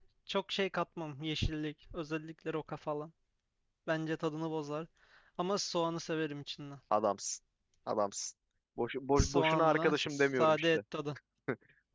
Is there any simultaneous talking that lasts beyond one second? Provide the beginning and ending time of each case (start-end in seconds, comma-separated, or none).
9.2-10.8